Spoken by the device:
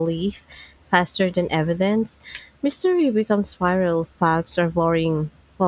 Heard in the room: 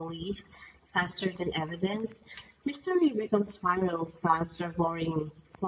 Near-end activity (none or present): none